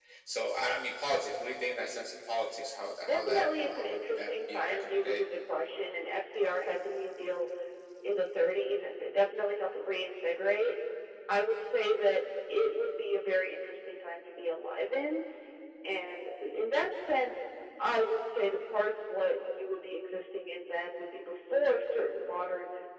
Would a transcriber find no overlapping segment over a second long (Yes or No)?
No